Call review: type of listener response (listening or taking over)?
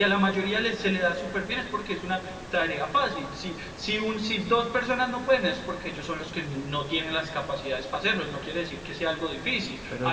listening